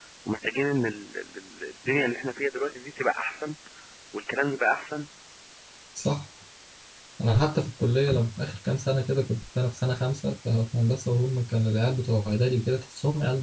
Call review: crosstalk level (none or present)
none